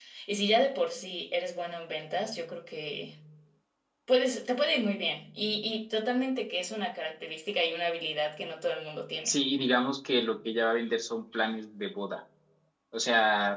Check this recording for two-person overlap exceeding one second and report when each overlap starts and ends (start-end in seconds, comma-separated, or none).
none